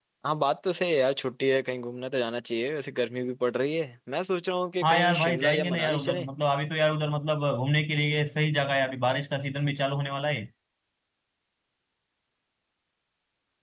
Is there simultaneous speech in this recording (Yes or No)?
Yes